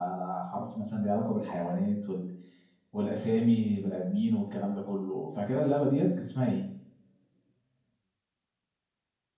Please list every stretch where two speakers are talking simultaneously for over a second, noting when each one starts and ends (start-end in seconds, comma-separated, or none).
none